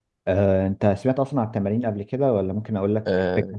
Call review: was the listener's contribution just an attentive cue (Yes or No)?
No